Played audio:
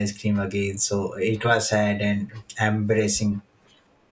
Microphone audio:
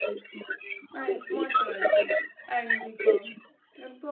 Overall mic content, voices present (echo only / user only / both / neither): both